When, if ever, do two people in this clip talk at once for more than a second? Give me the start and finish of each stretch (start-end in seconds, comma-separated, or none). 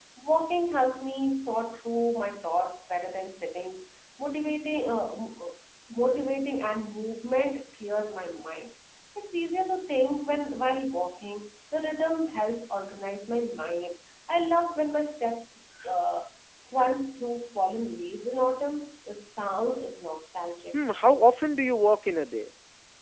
none